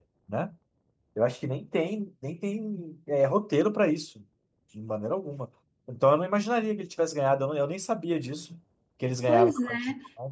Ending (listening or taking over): taking over